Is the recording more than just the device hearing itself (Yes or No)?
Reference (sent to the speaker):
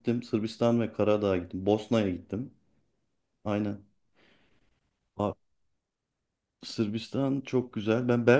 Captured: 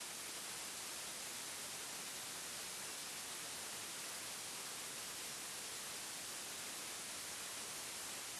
No